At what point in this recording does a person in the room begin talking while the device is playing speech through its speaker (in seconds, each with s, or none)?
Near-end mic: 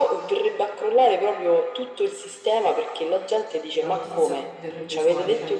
3.8 s